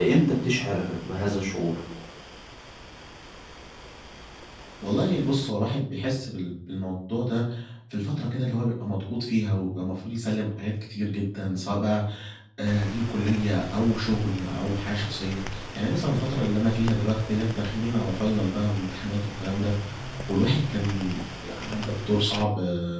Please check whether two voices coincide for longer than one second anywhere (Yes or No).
No